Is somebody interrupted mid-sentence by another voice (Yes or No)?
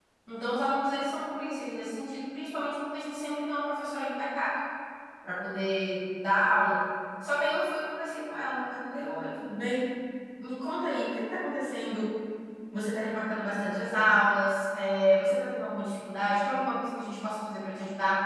No